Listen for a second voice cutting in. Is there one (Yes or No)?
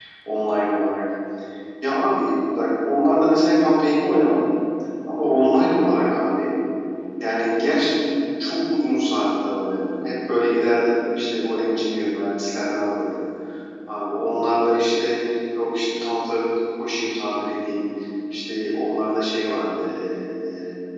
No